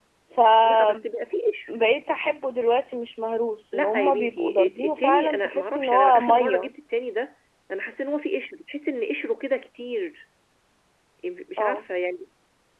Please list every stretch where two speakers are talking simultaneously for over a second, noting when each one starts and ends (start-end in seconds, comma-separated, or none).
3.7-6.7